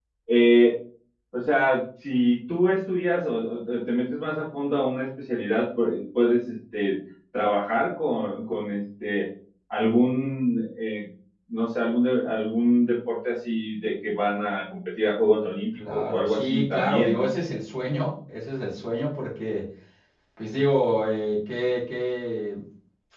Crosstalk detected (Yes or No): Yes